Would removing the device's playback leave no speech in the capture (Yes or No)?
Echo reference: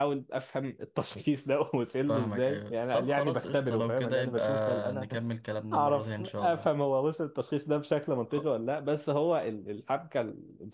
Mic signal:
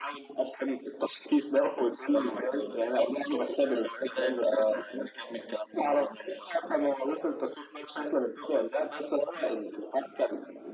Yes